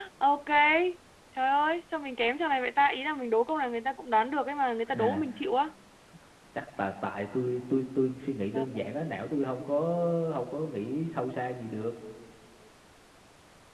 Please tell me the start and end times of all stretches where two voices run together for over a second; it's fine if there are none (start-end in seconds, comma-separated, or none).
none